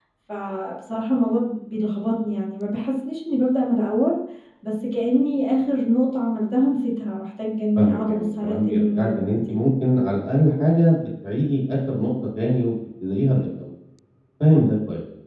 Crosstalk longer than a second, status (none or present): present